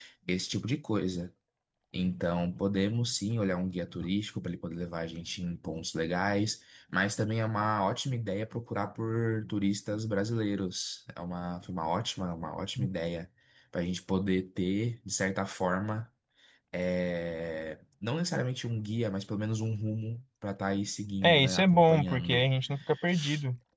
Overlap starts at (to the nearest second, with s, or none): 21 s